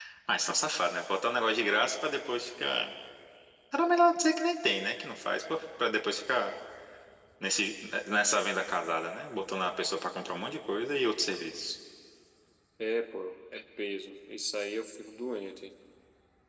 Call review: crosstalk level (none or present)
none